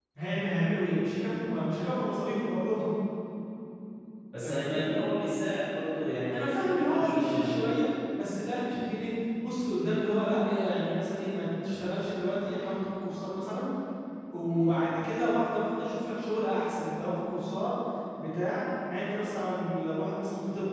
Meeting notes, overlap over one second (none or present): present